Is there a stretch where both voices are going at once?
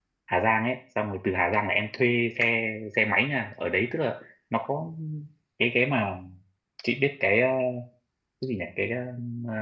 No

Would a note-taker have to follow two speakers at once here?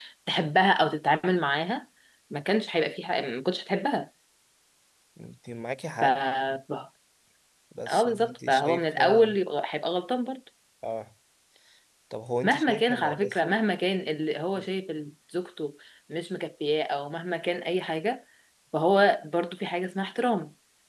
Yes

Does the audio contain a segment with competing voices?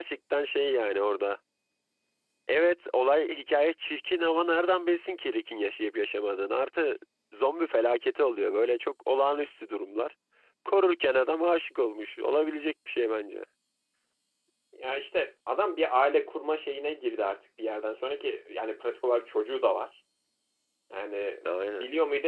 No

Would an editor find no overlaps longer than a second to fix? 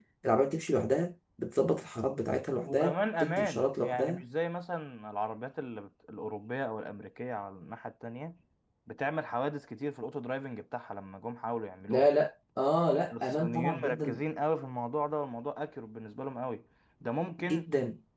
No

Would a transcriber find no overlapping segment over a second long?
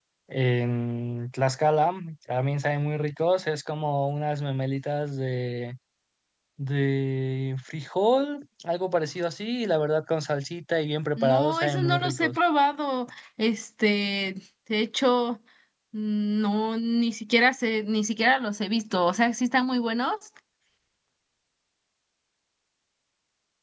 No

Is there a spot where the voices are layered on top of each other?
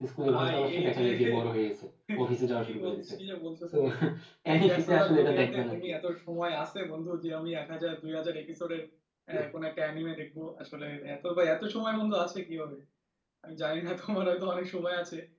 Yes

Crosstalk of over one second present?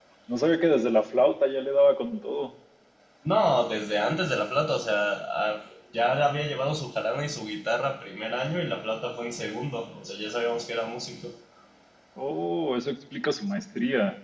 No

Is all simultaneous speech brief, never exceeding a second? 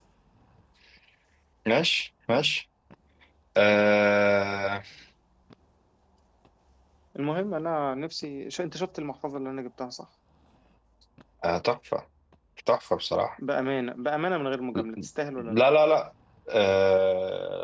Yes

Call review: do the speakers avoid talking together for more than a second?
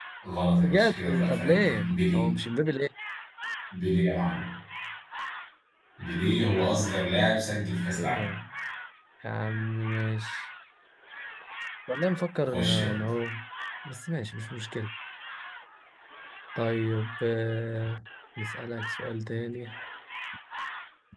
No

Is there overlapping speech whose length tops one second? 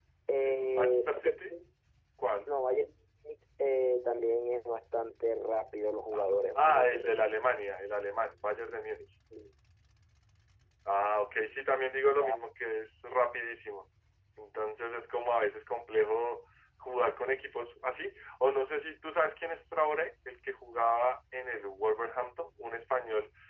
Yes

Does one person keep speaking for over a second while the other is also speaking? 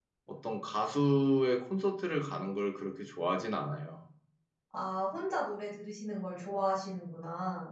No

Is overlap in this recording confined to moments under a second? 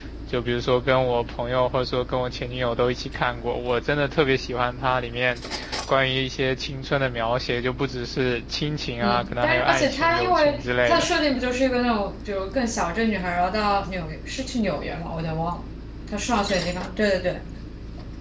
No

